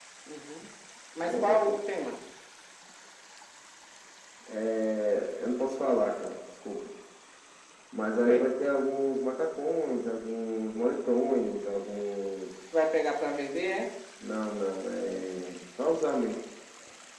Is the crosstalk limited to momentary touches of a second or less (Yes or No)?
Yes